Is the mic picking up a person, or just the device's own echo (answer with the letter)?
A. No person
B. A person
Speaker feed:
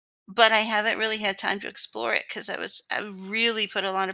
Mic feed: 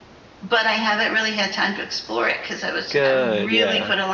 B